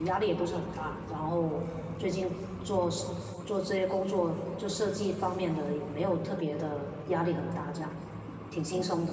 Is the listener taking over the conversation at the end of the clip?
Yes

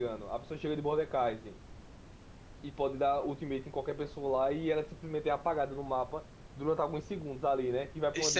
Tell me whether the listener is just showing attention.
No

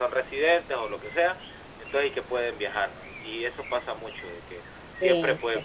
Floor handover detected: No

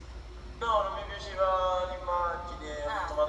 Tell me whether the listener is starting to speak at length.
No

